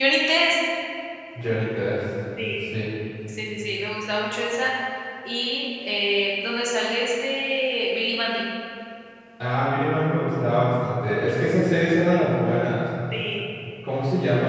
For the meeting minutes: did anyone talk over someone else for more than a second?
No

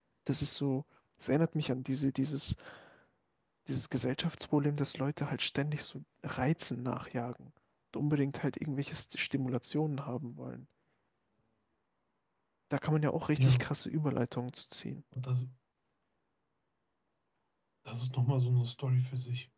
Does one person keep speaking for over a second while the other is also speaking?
No

